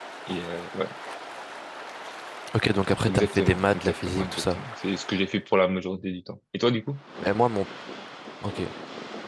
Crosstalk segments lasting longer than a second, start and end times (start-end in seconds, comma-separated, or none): 3.1-4.6